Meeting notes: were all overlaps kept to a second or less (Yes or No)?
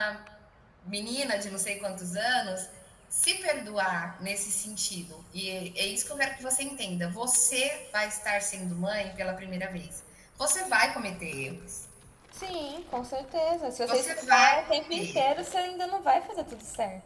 No